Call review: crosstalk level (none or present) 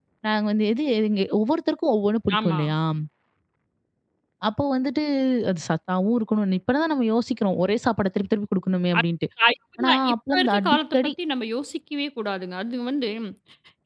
present